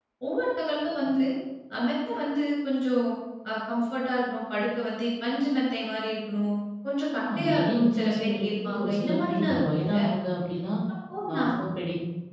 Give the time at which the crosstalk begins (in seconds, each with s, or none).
7.2 s